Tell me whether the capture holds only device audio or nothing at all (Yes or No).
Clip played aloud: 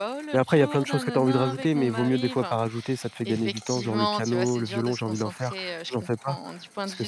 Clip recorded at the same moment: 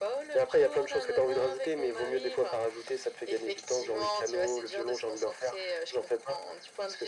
Yes